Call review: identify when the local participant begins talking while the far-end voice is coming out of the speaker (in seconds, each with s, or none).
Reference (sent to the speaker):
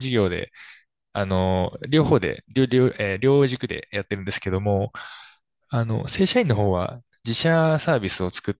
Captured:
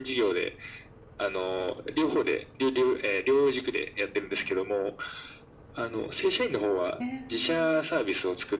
7.0 s